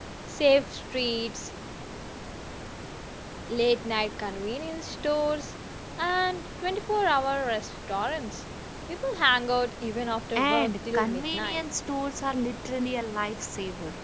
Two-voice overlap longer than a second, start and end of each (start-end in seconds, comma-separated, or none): 10.4-11.6